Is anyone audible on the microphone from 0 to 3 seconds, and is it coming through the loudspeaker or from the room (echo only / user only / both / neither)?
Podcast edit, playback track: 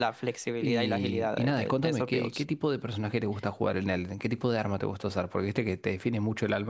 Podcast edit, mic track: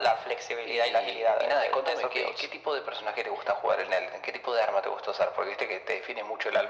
echo only